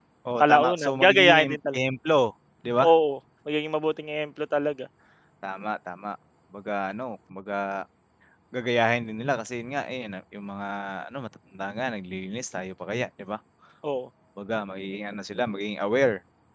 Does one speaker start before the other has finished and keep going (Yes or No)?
Yes